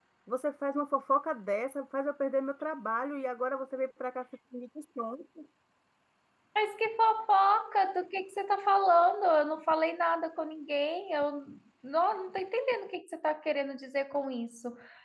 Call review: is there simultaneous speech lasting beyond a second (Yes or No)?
No